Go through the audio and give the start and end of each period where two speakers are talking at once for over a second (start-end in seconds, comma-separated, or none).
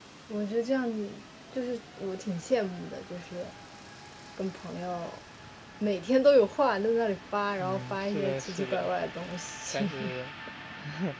7.6-8.9